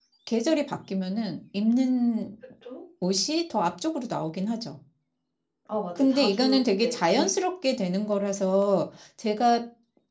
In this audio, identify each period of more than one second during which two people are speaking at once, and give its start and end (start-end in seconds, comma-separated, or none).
6.0-7.3